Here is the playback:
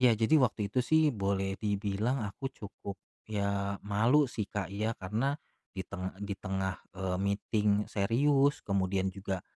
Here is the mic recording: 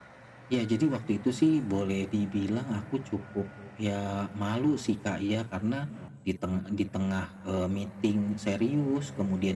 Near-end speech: none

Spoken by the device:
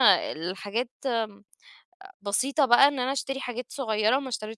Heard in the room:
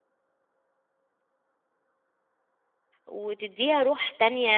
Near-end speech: present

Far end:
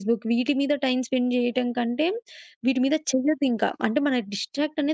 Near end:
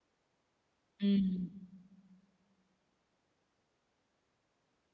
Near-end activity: present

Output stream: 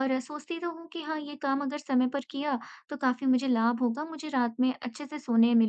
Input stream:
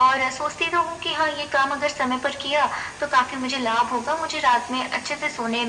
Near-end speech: none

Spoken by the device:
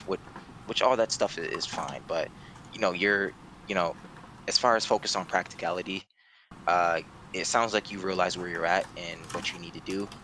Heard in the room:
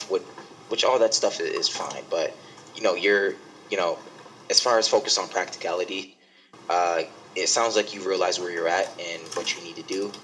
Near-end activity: none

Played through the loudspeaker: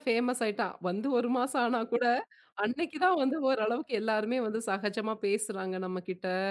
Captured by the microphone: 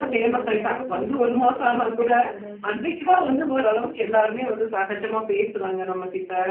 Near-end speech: present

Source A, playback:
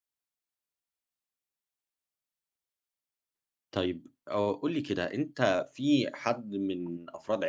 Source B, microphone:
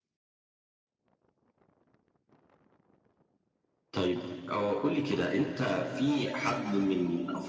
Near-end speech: none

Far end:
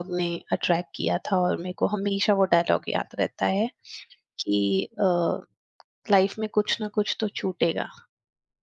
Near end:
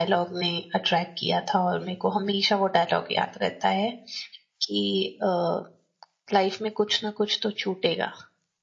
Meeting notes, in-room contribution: none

